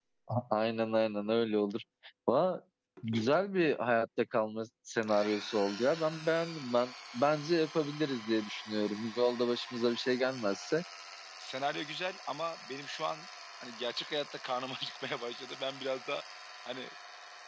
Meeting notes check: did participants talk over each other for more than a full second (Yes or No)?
No